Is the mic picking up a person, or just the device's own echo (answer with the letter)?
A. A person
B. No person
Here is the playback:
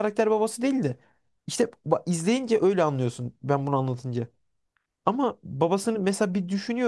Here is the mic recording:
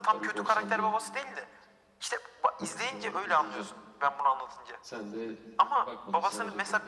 A